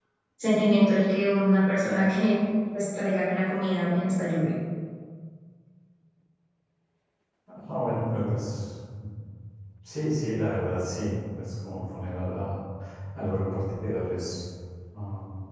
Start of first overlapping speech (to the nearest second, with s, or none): none